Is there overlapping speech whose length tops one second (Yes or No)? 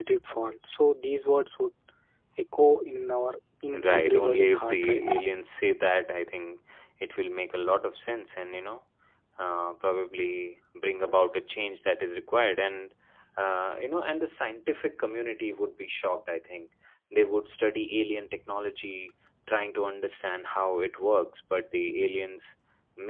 Yes